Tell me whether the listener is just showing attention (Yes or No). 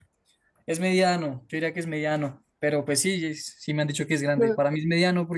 Yes